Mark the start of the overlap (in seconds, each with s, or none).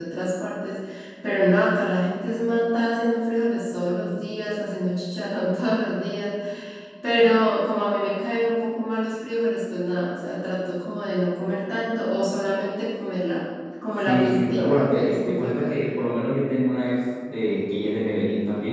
14.1 s